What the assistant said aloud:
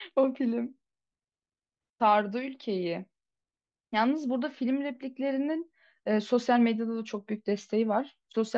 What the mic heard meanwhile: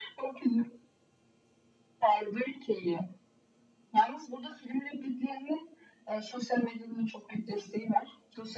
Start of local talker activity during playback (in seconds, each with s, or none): none